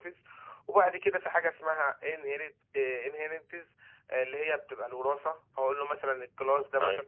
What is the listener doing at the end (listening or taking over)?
listening